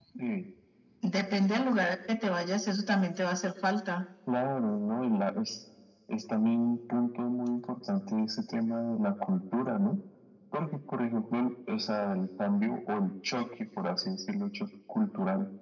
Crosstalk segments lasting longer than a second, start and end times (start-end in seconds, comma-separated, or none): none